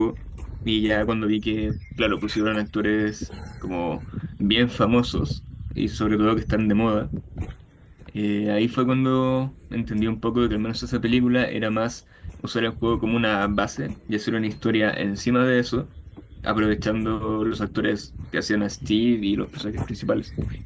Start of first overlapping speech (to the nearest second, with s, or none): none